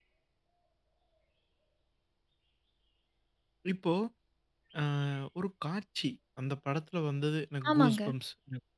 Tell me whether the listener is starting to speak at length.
No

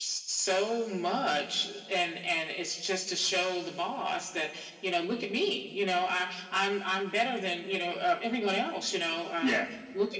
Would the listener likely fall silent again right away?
Yes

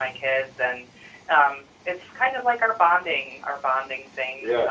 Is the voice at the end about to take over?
No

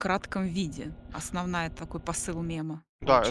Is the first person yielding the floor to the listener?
Yes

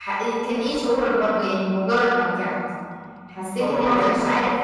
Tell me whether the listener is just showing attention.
Yes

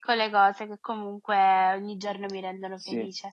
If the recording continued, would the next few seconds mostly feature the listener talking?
Yes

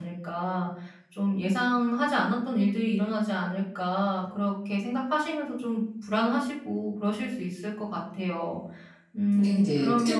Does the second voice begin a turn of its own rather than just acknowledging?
Yes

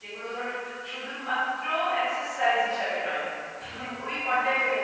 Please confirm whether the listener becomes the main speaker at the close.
No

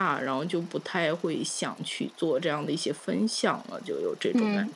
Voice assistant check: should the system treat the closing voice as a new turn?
Yes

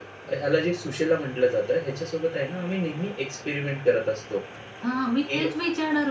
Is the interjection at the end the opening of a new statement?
Yes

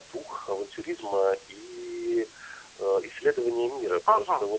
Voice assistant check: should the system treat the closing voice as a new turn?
Yes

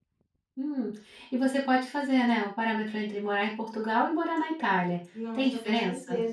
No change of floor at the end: No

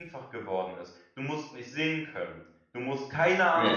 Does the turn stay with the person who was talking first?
Yes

